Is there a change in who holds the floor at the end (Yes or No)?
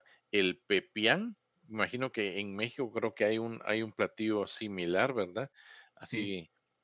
No